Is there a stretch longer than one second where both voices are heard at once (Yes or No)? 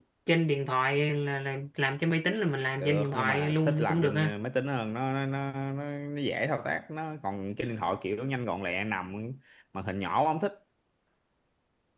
Yes